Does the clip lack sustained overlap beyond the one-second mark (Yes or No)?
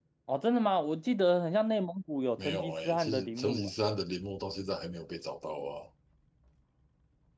No